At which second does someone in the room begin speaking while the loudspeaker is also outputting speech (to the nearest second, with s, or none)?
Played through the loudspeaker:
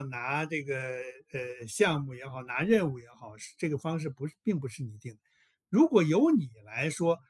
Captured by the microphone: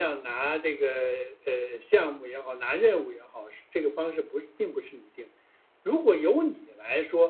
none